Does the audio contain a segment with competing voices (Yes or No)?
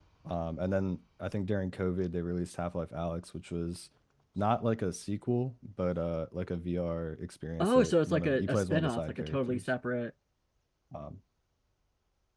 Yes